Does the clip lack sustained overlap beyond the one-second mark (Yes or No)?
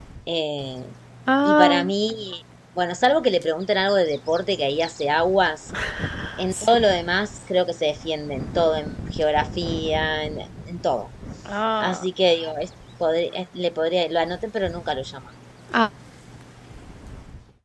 Yes